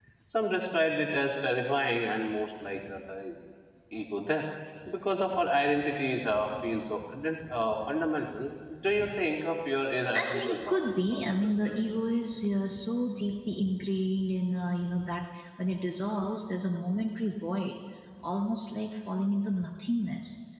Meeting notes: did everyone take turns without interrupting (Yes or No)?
No